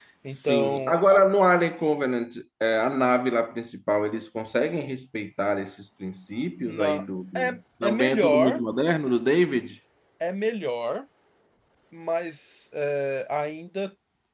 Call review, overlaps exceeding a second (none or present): present